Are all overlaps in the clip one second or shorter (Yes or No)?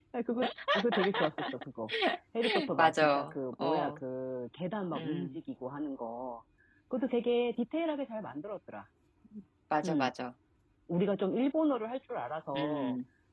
No